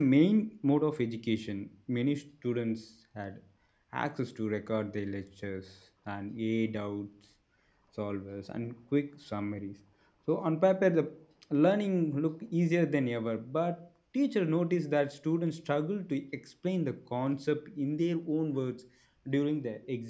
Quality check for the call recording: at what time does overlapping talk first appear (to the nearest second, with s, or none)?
none